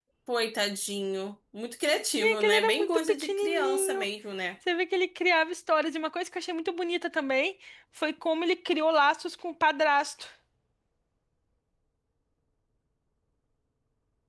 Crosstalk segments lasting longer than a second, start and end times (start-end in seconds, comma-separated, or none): 2.2-4.0